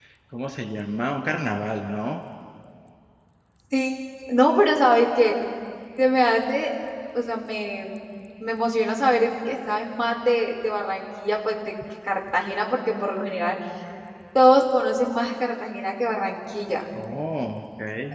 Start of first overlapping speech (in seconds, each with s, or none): none